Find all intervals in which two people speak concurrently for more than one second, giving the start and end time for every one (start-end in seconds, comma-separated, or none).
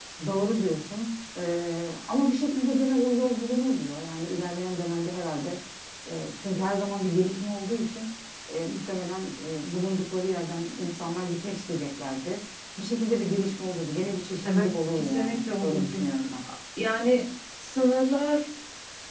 14.4-16.0